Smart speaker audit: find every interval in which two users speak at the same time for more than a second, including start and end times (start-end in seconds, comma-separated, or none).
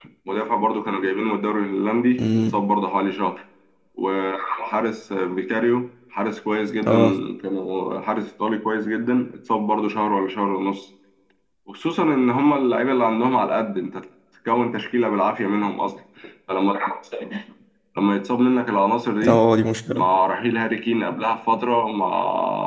none